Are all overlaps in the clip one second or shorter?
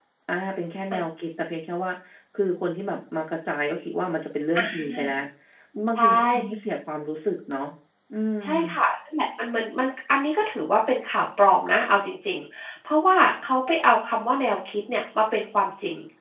Yes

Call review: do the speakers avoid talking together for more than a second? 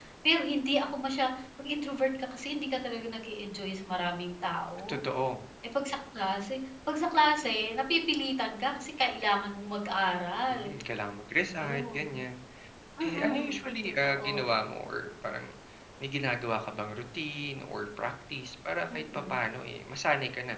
No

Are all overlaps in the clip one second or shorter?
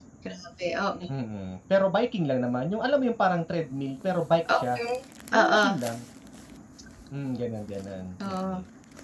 Yes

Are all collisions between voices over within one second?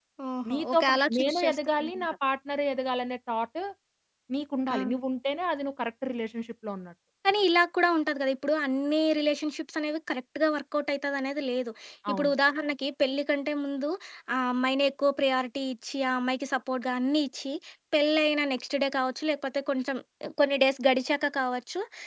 No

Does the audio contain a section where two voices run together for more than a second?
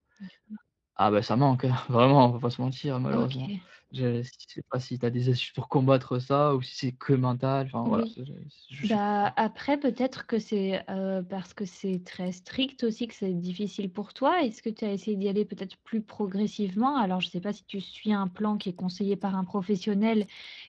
No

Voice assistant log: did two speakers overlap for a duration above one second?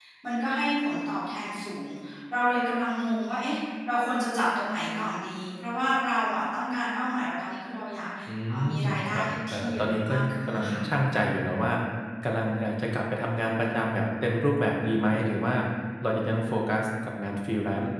Yes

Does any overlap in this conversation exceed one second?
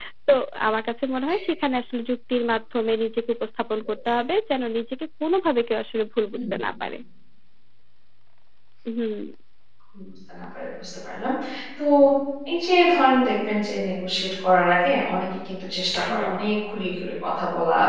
No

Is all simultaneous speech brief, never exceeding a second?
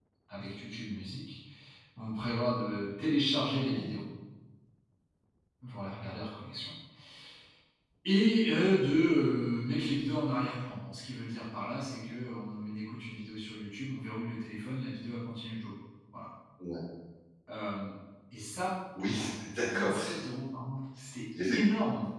Yes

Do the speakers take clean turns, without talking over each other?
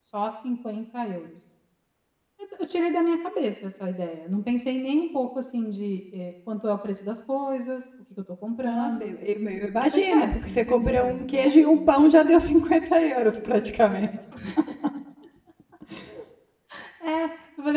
No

